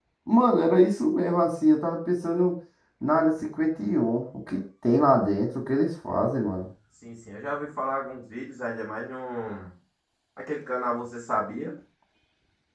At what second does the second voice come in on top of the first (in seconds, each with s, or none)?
none